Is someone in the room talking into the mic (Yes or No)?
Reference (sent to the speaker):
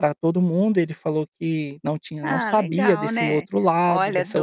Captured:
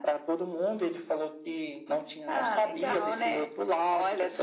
No